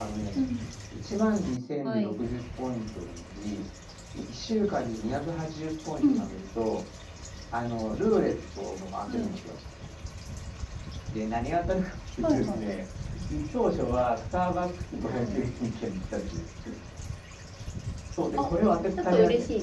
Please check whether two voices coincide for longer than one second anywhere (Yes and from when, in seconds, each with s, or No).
No